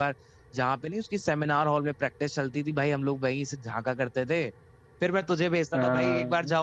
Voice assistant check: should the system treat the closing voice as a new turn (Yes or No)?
No